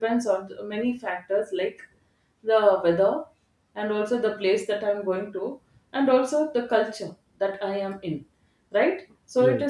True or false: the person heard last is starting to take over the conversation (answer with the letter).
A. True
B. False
B